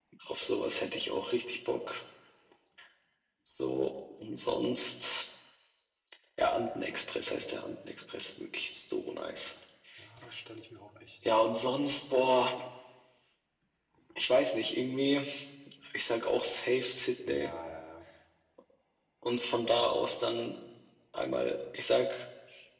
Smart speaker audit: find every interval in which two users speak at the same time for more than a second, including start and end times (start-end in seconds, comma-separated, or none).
none